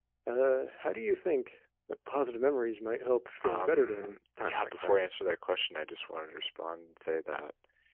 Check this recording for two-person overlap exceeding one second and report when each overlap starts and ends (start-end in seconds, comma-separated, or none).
3.4-5.0